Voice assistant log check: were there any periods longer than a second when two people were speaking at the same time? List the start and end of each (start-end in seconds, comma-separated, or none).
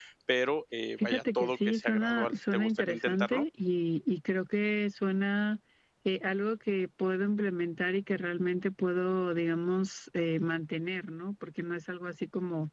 1.0-3.5